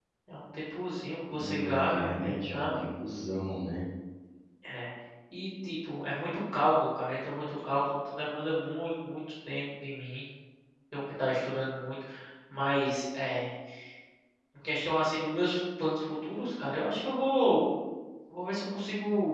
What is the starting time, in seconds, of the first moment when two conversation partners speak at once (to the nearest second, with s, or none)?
1 s